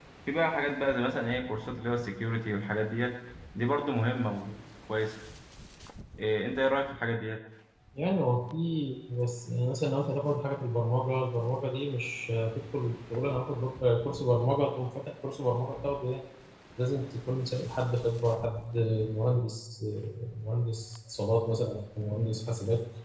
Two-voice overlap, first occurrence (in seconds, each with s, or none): none